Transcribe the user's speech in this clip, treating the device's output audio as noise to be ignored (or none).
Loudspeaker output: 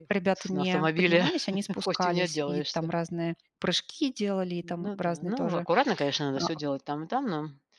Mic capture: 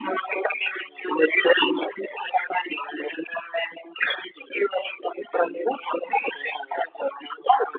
none